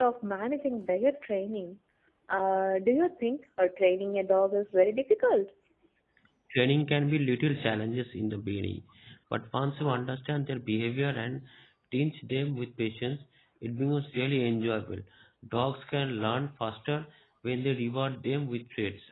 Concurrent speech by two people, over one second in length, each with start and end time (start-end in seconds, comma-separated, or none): none